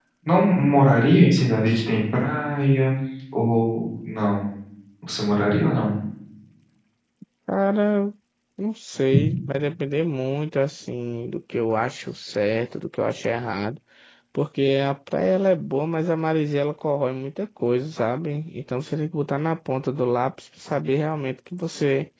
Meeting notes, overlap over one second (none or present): none